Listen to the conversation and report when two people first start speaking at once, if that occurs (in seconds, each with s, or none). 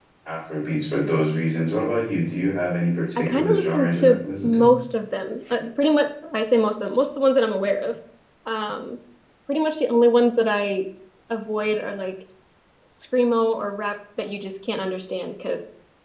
3.2 s